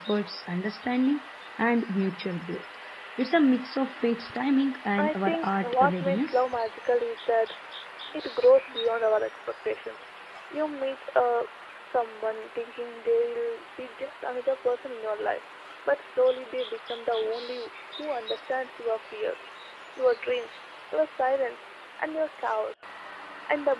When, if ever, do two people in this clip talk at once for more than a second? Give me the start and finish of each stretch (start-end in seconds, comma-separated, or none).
5.0-6.4